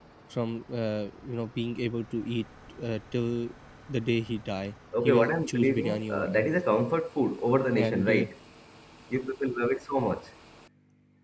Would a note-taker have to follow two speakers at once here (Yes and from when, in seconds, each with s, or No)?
Yes, from 5.0 s